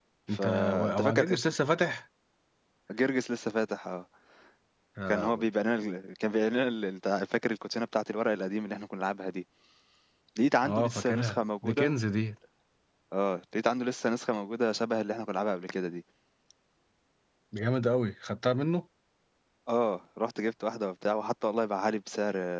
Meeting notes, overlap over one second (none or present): present